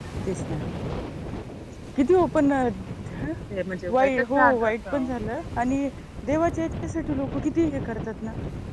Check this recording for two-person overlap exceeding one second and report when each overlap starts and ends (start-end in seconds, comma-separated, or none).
3.9-5.1